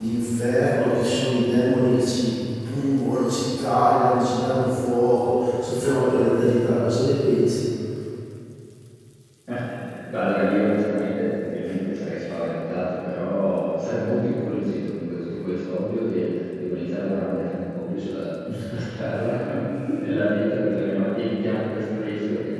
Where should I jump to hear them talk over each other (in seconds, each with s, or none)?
none